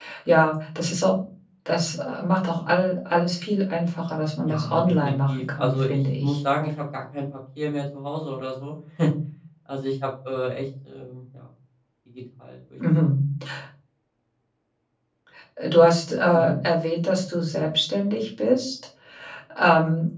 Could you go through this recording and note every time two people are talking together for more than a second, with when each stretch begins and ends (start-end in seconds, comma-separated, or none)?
4.5-6.4